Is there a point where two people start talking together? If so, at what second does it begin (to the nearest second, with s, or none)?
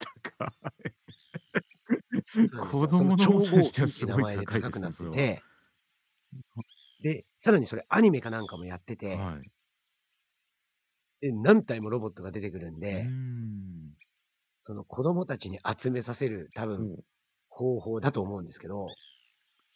3 s